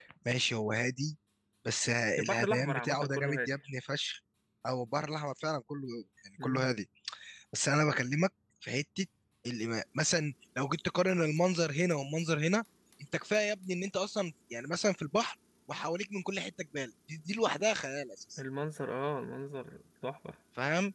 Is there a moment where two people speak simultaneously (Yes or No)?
Yes